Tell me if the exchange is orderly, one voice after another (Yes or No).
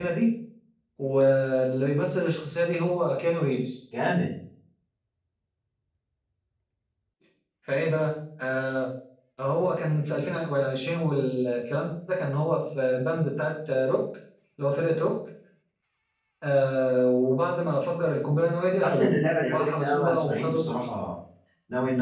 No